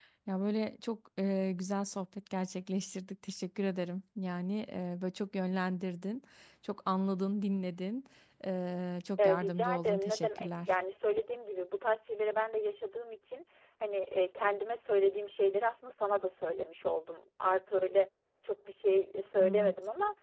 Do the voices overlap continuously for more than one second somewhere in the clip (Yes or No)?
Yes